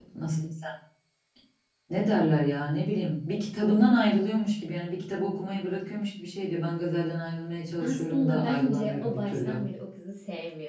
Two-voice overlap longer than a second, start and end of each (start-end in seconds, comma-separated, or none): 7.8-9.6